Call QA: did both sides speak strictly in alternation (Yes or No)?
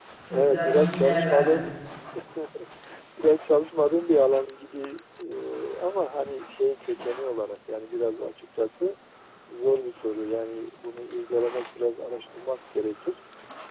No